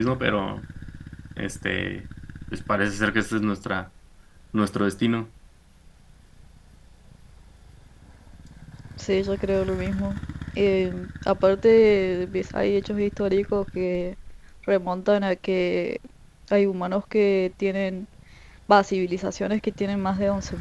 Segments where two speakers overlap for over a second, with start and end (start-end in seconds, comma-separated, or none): none